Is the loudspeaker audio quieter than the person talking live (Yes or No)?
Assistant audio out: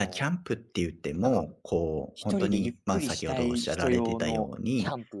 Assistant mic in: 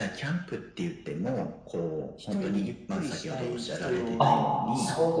Yes